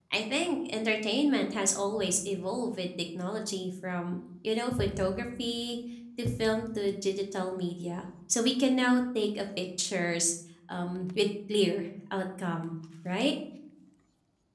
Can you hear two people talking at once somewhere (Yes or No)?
No